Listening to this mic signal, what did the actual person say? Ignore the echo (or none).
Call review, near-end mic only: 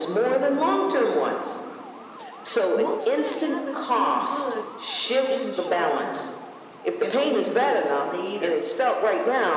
Most bad habits feel good in the short term and only hurt us later.